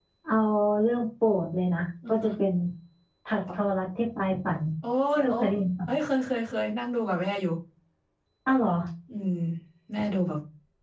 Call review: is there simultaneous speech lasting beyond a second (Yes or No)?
No